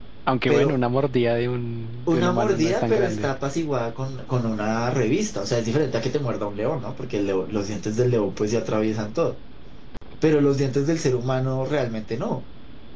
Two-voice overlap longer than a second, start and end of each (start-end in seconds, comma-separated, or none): 2.1-3.3